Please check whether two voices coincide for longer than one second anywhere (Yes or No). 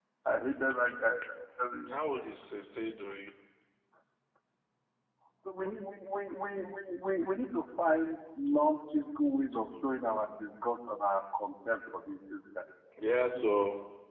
No